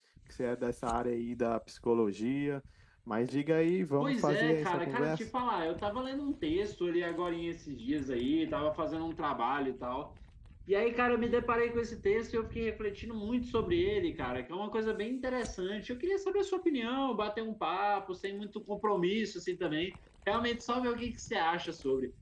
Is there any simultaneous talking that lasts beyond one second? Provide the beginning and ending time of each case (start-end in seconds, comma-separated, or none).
4.0-5.2